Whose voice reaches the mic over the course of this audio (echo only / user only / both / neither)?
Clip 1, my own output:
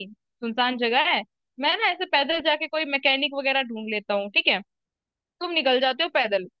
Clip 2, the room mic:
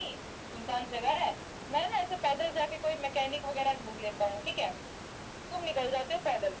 echo only